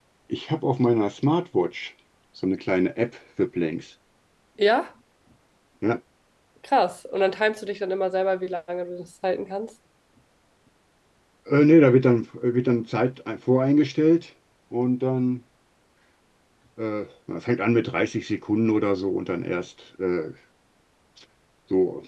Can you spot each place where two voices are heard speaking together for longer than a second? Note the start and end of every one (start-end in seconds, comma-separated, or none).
none